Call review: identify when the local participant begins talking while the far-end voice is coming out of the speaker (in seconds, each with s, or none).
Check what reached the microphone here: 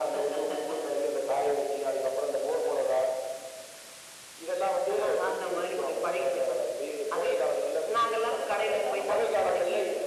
none